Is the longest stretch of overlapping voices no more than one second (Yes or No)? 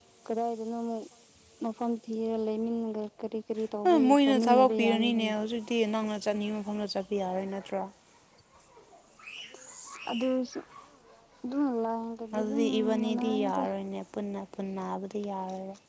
No